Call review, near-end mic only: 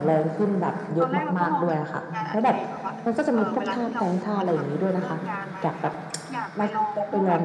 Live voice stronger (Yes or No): No